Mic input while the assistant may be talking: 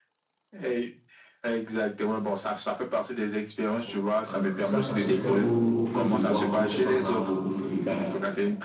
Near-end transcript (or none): On- voilà. Et ça, ça se fait au, au feu de bois. On ne fait pas ça au, au feu de gaz.